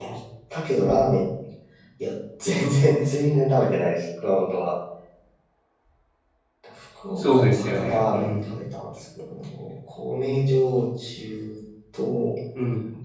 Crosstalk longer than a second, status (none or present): present